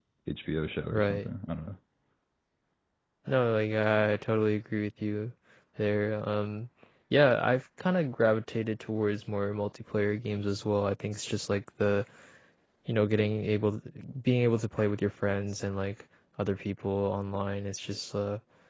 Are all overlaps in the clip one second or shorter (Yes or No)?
Yes